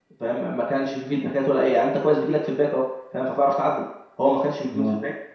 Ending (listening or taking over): listening